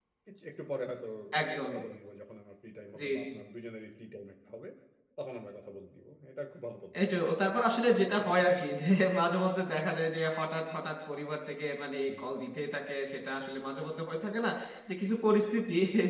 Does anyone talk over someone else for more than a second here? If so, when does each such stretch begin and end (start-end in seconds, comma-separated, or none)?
7.0-8.7